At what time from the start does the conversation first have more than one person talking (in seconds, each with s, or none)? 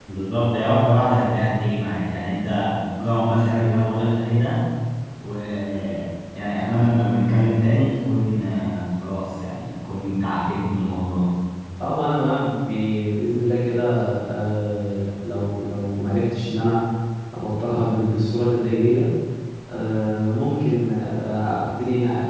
none